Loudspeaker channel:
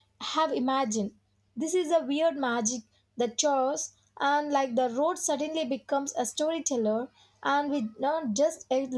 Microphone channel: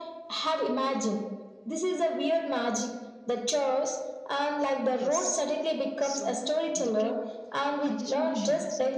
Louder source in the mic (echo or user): echo